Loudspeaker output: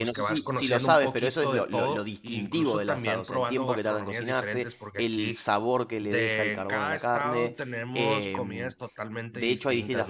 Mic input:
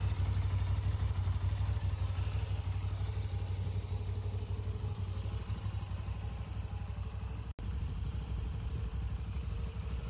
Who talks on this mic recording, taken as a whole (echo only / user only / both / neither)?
neither